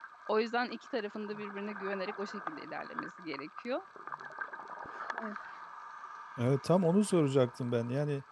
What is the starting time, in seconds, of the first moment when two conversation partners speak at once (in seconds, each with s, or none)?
none